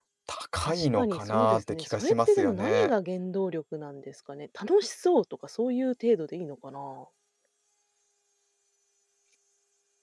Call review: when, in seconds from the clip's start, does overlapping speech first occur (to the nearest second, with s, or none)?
1 s